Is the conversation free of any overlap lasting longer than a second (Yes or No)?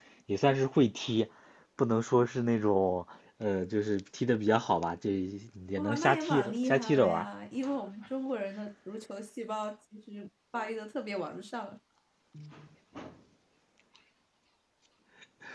No